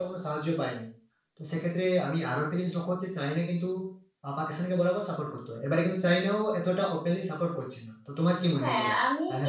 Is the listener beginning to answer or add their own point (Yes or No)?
Yes